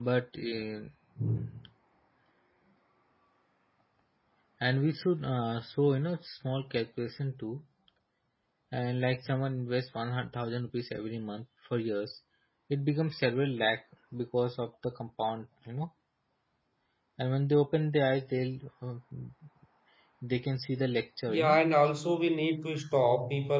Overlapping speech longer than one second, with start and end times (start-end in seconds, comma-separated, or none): none